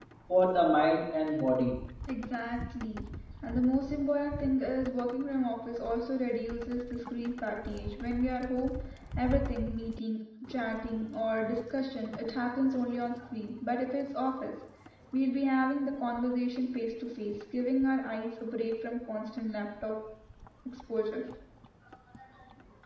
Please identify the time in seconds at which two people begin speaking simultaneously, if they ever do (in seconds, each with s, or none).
none